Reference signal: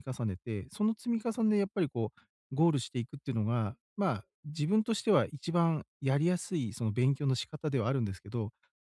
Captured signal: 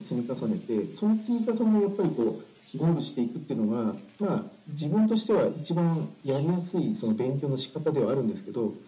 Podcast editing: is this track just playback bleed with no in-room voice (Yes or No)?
Yes